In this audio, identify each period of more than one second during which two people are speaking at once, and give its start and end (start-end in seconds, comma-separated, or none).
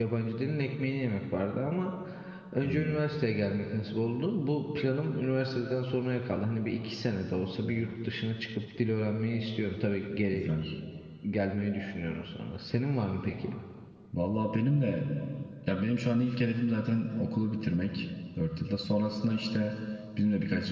none